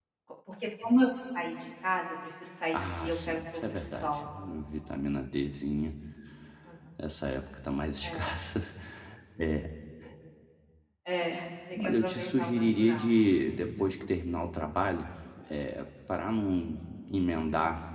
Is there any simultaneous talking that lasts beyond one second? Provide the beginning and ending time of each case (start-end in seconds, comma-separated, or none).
2.7-4.2, 11.8-13.1